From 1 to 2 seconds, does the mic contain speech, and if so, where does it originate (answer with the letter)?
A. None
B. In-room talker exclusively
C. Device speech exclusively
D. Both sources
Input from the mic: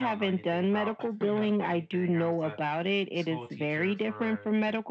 D